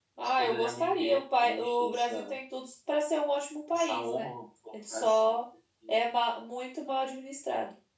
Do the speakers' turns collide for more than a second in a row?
Yes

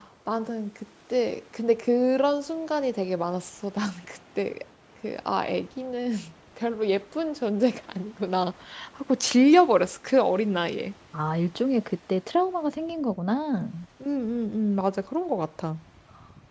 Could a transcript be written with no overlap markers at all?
Yes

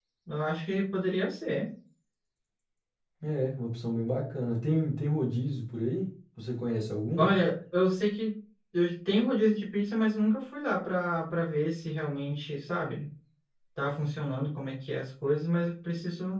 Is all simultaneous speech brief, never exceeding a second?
Yes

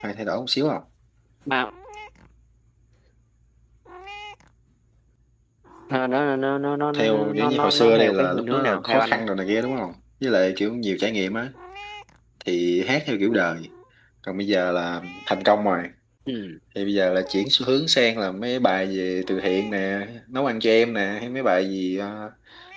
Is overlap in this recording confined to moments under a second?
No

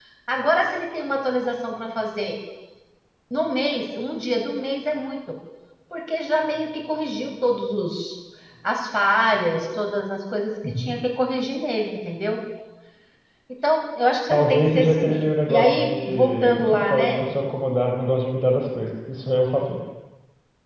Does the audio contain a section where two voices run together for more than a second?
Yes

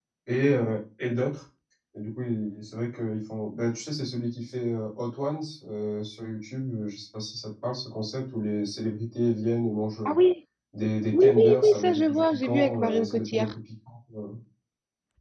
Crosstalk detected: Yes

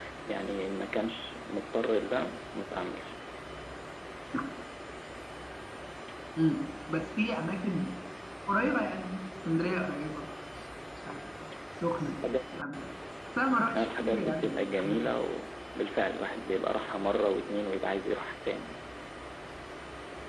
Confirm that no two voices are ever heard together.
No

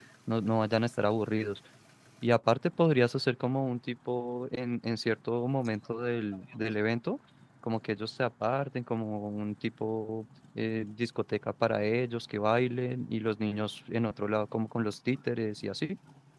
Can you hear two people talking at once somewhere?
No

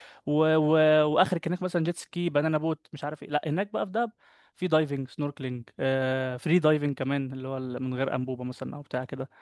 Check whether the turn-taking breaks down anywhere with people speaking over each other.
No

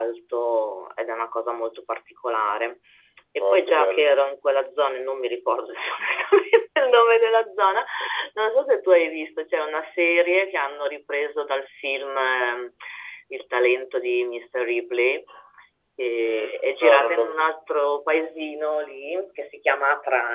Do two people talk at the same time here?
Yes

